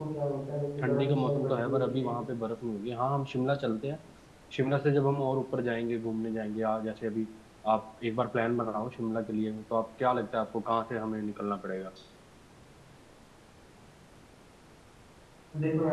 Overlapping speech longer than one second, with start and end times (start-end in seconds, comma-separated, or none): 0.8-2.2